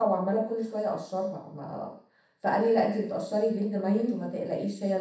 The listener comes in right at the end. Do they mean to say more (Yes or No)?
No